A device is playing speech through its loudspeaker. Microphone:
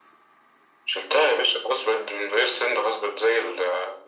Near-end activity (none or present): none